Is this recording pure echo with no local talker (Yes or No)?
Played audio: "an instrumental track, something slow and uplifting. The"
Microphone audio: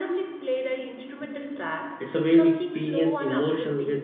No